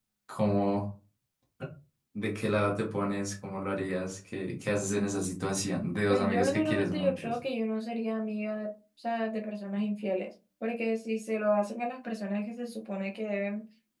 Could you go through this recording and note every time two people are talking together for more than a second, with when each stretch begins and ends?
6.1-7.4

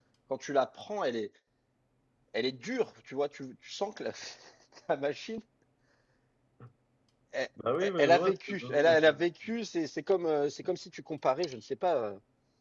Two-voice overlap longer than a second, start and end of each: 8.0-9.2

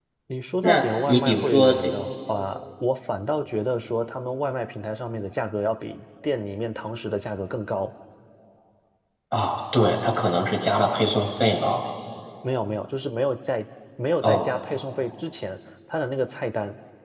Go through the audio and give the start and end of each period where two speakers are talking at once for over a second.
0.6-1.9

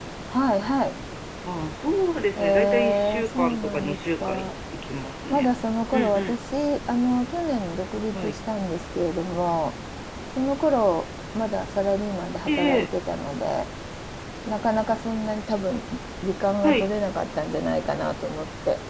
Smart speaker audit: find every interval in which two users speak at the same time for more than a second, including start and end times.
2.4-4.5

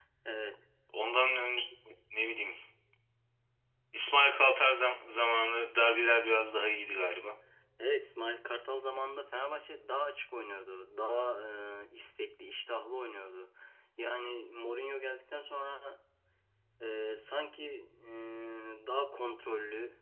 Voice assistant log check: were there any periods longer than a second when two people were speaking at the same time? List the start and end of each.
none

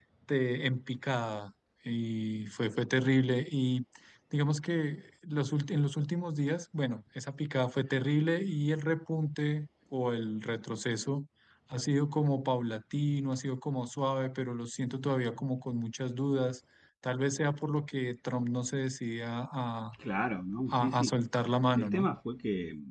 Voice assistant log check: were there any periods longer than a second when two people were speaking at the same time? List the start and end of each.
none

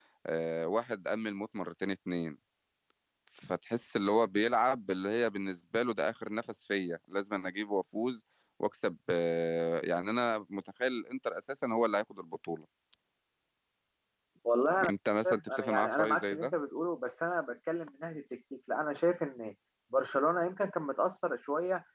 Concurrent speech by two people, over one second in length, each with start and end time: 15.3-16.5

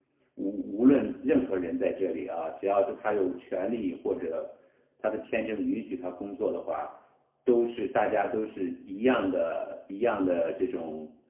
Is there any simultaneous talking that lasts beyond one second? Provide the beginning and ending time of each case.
none

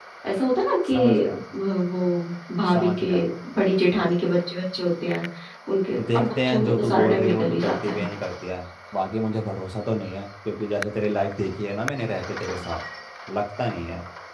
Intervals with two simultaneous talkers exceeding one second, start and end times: 6.1-8.0

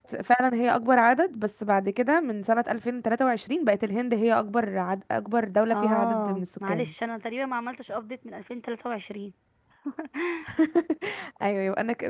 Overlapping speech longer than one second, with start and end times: 5.7-6.9

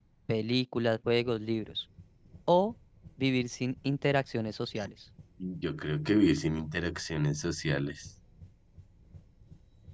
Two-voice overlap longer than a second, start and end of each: none

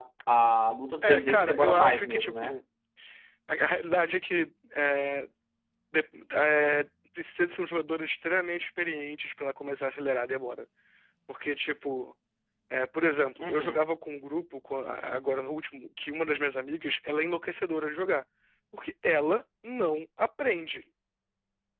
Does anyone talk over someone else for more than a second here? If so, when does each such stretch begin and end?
1.0-2.6

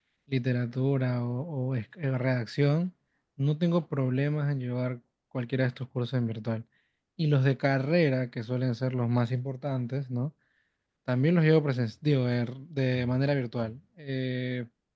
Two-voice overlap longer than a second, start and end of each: none

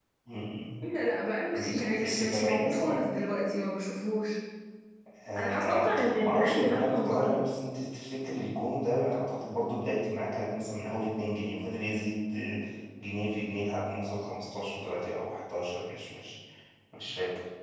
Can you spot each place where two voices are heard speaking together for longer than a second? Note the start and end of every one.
1.5-3.0, 5.4-7.3

